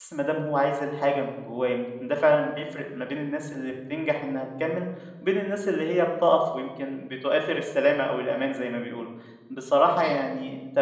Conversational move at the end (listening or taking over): listening